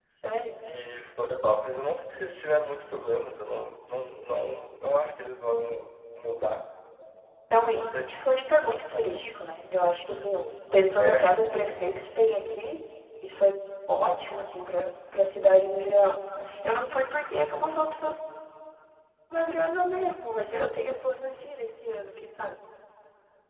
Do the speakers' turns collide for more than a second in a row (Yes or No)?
No